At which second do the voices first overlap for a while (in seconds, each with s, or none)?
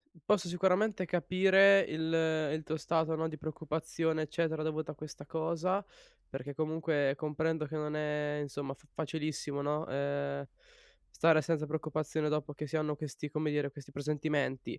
none